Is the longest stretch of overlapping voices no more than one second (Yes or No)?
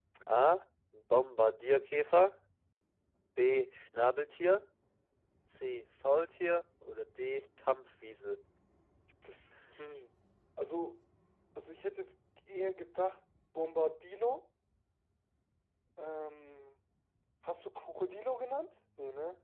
Yes